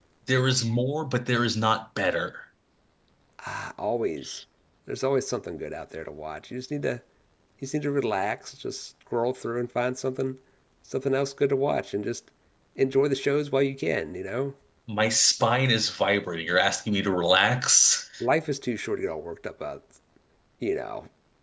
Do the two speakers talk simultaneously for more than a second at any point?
No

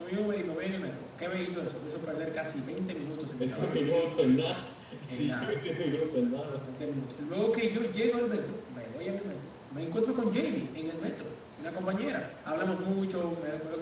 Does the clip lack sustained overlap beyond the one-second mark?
Yes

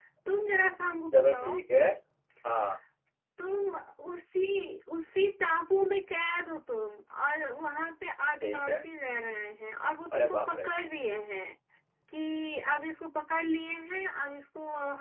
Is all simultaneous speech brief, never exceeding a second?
Yes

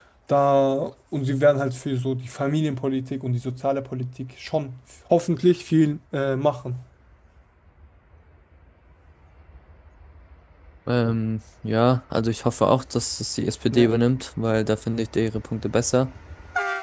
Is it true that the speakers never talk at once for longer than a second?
Yes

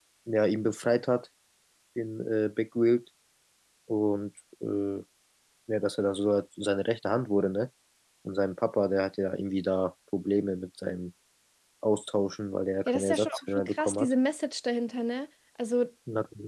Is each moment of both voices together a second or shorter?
No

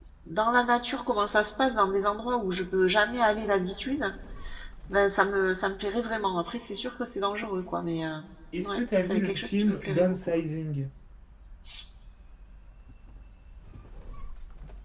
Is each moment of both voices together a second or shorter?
No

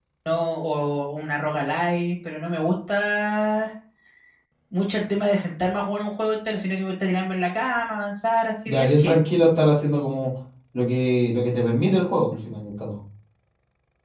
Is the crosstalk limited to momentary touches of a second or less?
Yes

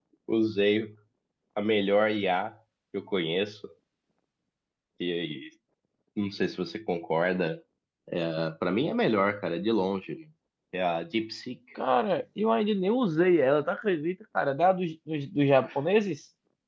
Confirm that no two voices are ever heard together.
Yes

